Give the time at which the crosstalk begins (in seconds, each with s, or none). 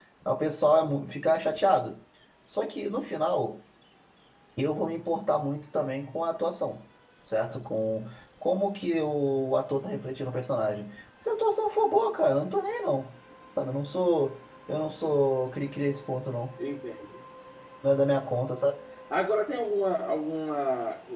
none